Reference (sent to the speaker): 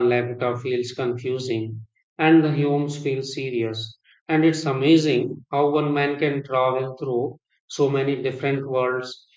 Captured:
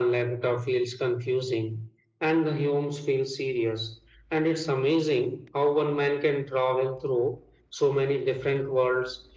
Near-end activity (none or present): none